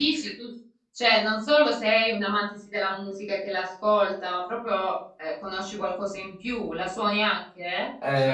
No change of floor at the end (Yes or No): No